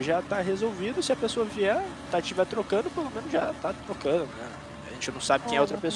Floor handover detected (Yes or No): No